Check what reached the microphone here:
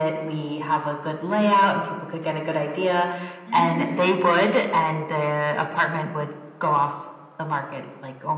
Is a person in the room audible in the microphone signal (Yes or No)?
Yes